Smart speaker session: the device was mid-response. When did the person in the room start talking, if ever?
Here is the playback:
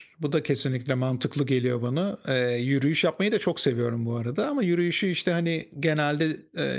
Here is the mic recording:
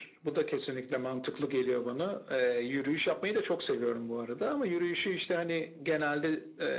none

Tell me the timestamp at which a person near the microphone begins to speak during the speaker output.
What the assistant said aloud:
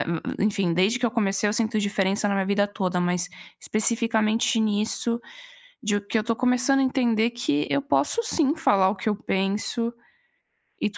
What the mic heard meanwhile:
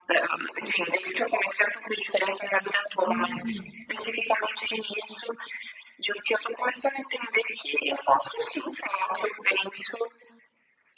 3.0 s

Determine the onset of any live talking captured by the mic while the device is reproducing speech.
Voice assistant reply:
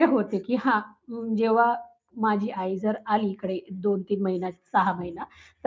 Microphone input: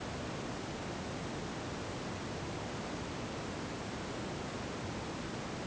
none

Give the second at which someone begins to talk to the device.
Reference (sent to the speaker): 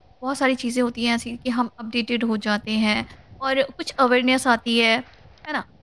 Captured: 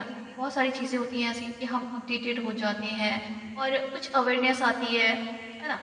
none

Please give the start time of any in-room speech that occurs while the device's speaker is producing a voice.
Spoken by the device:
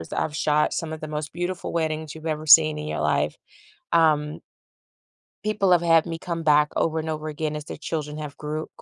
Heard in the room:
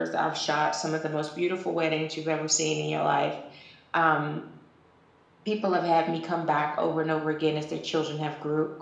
none

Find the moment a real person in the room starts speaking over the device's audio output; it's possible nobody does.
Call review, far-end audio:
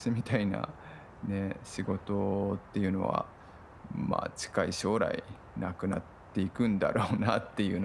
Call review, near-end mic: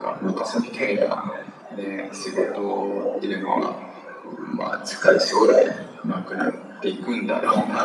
none

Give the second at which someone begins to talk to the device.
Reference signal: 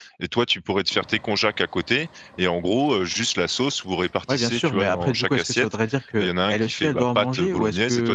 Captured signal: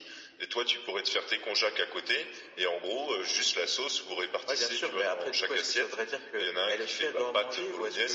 none

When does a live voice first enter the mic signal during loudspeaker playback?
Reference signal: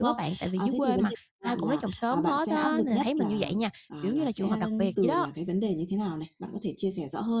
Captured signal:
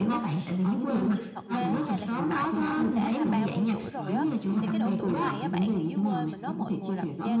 0.8 s

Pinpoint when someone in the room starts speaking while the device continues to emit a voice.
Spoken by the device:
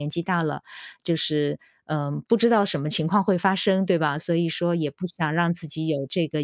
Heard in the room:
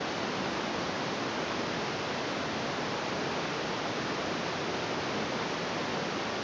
none

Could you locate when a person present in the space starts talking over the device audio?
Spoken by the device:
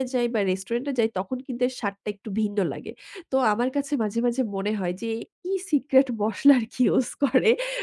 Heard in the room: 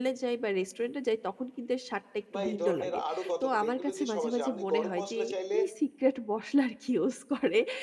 2.3 s

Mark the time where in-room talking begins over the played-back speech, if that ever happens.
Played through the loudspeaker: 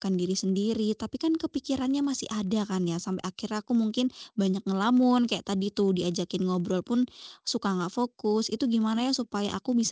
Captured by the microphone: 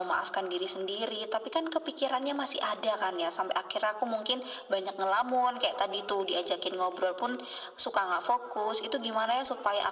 none

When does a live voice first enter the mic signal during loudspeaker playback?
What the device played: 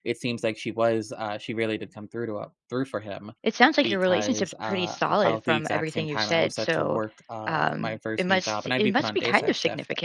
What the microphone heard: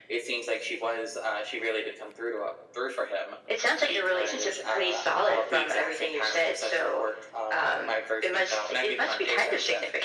none

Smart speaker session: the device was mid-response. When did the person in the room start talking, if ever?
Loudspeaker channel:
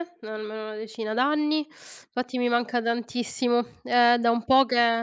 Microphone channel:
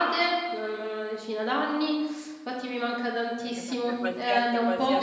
3.4 s

